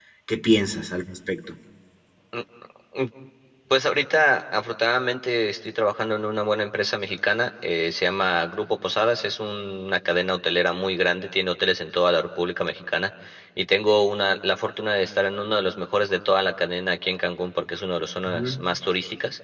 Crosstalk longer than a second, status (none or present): none